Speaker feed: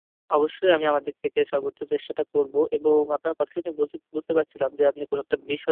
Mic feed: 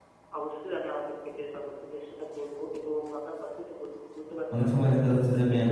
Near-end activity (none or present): present